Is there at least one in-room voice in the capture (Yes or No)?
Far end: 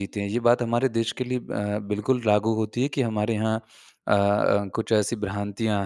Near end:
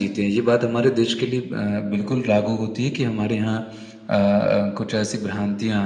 No